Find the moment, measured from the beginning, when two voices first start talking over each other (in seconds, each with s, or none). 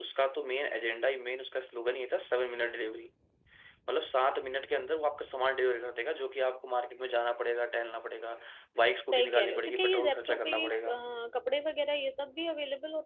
9.1 s